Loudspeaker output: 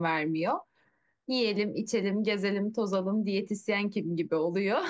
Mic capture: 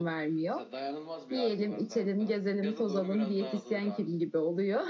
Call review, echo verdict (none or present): present